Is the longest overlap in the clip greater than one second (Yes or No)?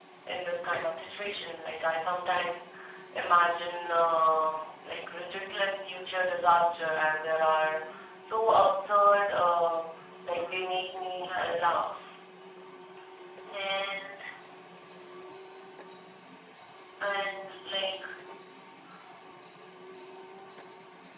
Yes